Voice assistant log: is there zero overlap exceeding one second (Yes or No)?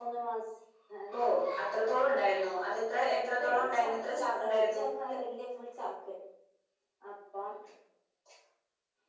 No